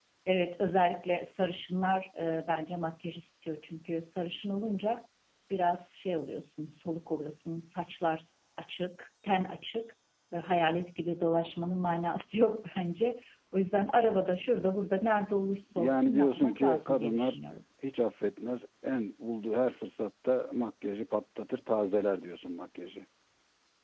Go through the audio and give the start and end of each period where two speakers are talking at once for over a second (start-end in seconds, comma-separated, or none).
15.8-17.4